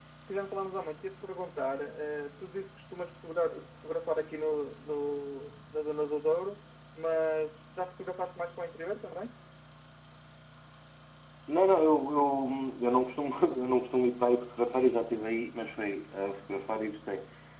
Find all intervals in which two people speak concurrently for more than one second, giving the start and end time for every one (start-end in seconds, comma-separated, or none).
none